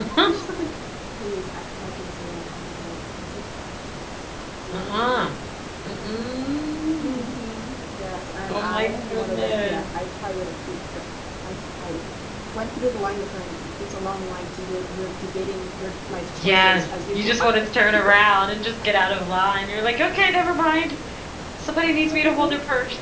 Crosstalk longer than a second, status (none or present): present